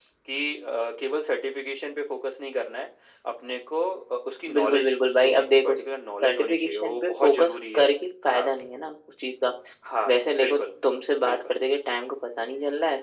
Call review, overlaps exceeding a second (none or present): present